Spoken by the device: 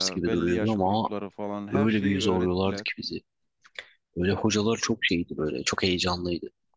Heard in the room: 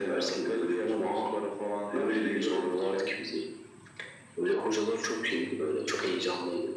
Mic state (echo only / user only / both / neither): echo only